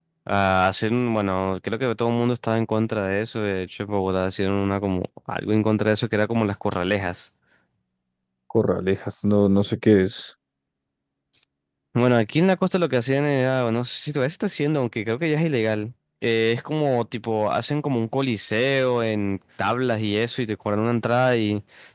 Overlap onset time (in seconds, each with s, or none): none